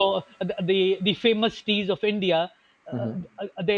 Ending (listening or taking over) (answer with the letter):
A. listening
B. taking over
A